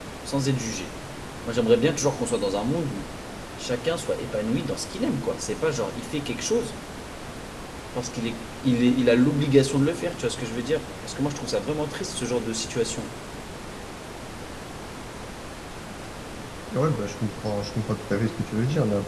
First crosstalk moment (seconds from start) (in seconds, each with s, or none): none